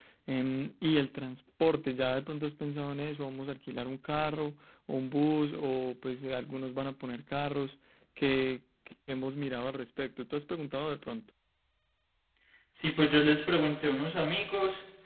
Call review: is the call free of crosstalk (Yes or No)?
Yes